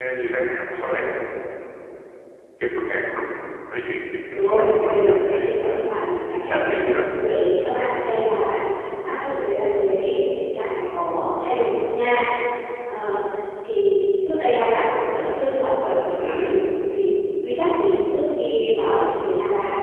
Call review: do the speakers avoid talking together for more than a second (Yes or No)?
No